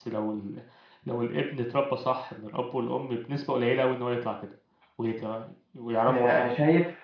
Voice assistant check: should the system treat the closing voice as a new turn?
Yes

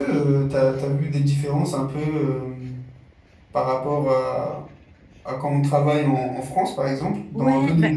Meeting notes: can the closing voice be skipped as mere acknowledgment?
No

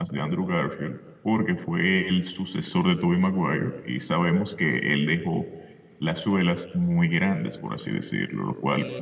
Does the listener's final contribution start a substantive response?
Yes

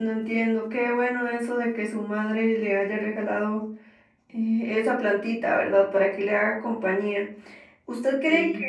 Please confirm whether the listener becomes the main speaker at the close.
No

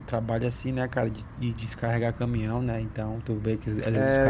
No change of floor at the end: No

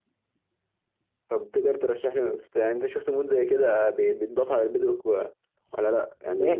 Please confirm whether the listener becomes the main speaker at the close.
No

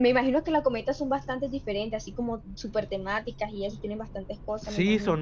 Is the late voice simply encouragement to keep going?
No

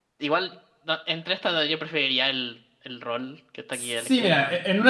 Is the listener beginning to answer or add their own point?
Yes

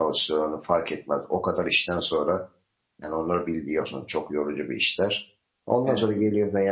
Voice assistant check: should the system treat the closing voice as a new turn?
No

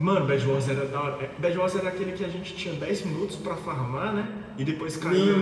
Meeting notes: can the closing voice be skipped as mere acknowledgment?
No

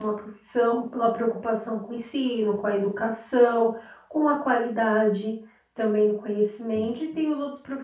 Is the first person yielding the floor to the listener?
No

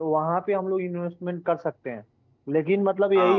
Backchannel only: Yes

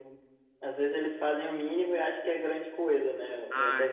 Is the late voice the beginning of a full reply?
No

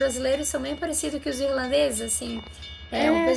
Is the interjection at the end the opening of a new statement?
No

